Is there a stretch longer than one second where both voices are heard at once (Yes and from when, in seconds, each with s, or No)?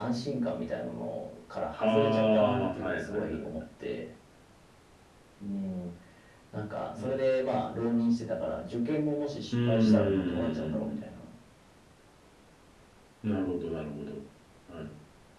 Yes, from 1.8 s